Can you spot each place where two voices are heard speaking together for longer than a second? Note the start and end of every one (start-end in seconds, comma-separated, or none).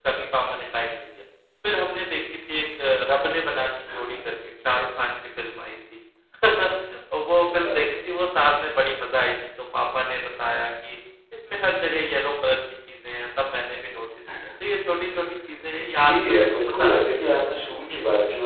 16.0-17.3